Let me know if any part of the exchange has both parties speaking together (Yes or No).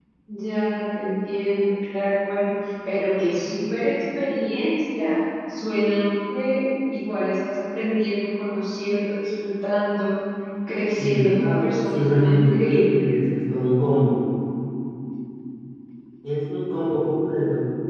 Yes